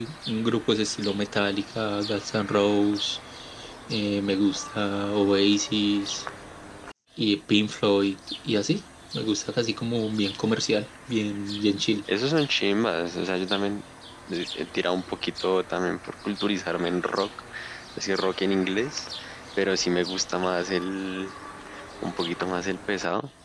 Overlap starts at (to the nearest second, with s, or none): none